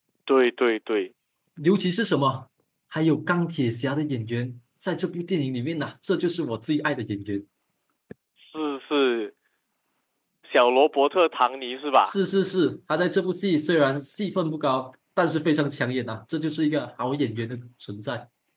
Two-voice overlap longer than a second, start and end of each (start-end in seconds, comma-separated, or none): none